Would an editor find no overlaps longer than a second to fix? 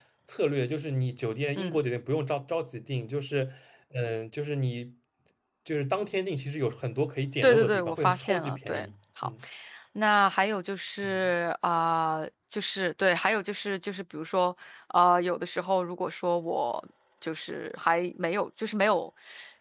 No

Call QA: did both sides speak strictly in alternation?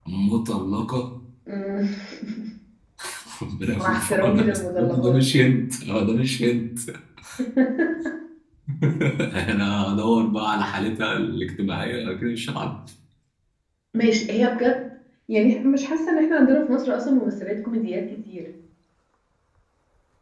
No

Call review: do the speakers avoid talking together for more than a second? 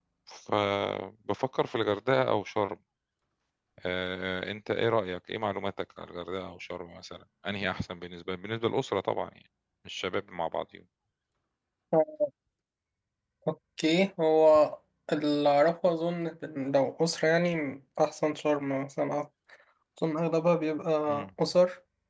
Yes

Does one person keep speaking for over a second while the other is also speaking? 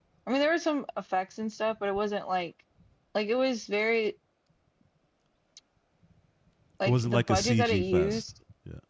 Yes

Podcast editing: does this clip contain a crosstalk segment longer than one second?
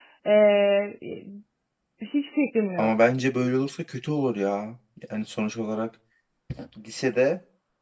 No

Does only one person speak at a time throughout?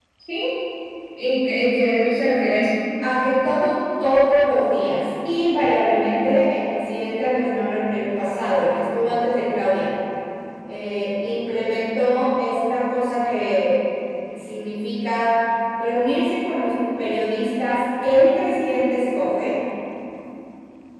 Yes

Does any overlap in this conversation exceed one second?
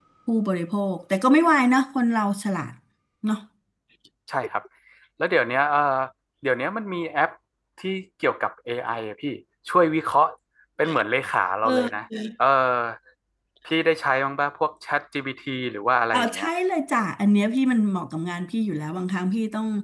No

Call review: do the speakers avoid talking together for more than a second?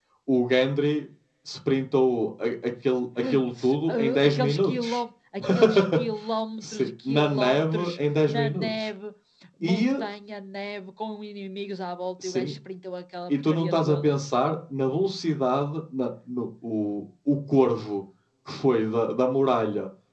No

